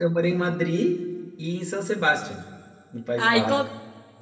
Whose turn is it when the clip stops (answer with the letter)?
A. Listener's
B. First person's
A